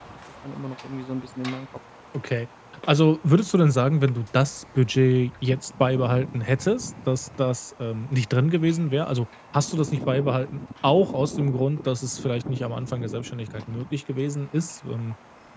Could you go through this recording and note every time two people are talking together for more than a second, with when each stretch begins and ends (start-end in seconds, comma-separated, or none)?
none